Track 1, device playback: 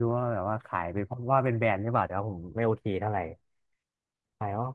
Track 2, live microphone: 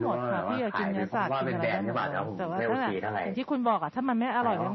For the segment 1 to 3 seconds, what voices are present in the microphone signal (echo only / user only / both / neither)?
both